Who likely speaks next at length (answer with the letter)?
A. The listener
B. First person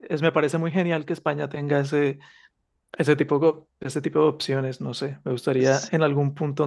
B